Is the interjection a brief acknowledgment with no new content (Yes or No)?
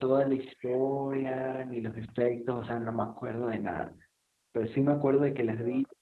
Yes